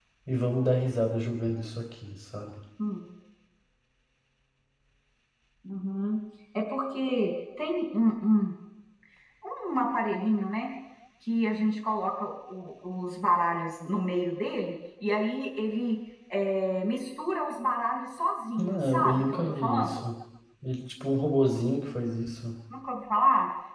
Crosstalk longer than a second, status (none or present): present